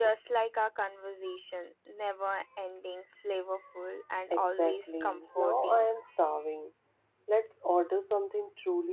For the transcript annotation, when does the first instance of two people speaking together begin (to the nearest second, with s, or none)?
4 s